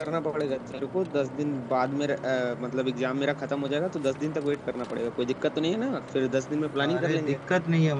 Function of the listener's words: taking over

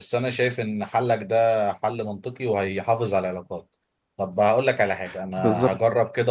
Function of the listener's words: listening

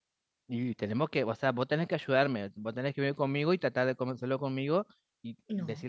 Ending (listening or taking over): listening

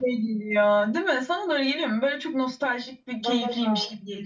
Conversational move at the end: taking over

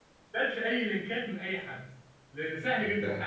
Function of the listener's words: listening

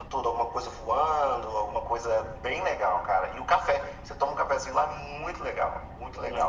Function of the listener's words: taking over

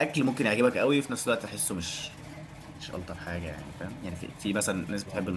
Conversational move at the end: listening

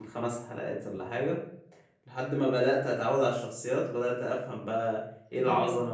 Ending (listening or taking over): taking over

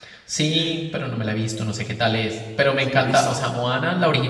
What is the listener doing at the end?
listening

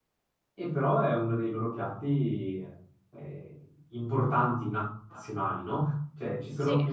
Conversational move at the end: listening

